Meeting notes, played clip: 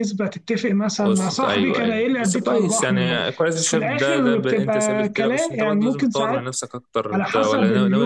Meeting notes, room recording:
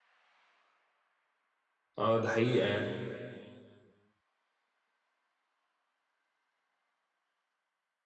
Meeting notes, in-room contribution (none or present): present